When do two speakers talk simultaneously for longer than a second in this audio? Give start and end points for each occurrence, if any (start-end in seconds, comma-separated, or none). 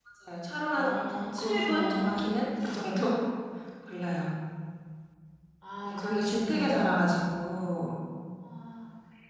0.7-2.3, 5.8-7.2